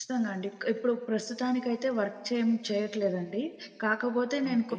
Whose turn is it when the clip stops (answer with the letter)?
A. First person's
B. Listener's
A